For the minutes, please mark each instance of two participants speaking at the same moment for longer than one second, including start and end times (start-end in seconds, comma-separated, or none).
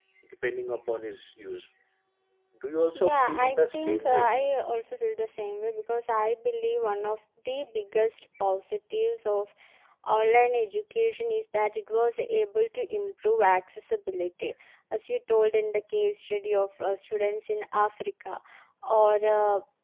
2.9-4.3